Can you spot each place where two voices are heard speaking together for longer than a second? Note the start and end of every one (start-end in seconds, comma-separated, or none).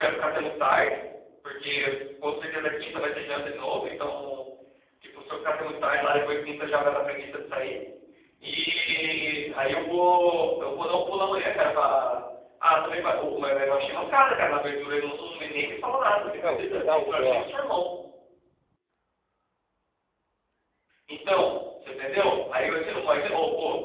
16.2-17.5